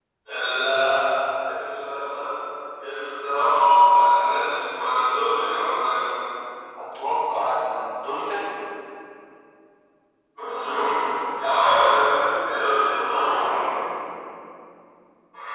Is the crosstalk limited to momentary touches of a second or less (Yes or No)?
Yes